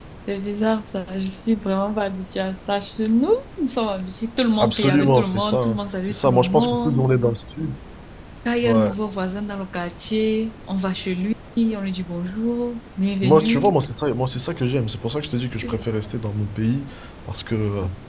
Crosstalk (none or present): present